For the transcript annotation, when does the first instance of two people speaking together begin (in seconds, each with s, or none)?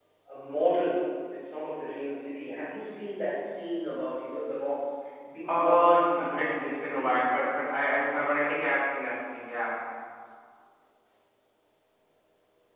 5.5 s